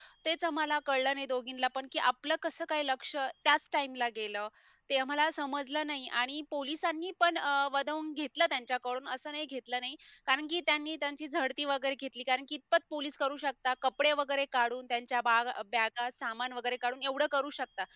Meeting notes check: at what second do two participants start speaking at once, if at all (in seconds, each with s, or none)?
none